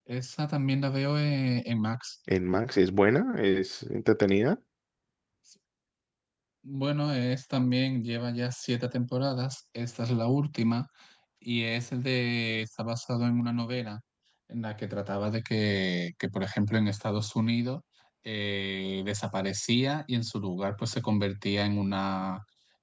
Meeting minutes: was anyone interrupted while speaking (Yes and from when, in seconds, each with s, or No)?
No